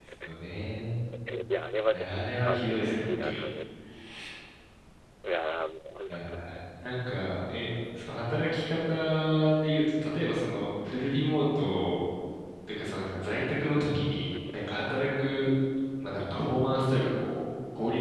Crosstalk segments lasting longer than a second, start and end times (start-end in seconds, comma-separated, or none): 1.9-3.4